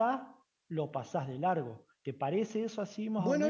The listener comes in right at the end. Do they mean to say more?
Yes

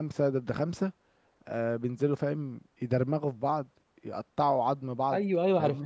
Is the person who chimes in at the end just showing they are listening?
No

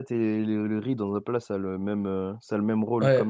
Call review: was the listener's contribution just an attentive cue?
No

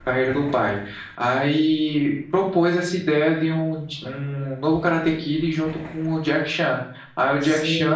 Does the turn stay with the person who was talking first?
No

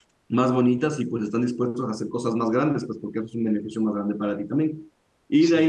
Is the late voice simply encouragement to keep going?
Yes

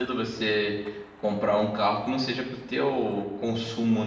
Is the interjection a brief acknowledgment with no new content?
No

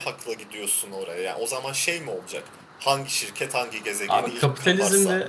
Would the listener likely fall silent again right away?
No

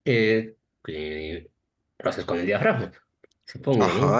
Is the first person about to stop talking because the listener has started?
Yes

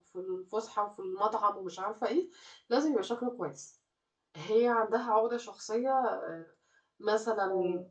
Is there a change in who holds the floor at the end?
No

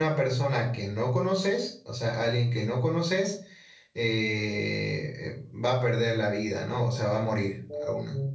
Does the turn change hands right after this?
No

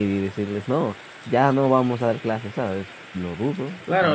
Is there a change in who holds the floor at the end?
Yes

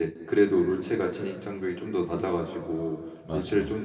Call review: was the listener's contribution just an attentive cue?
Yes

